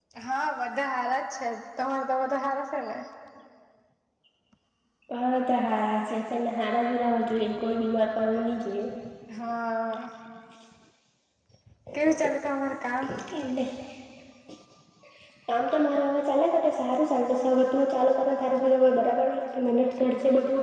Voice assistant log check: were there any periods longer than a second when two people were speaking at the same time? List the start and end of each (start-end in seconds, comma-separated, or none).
none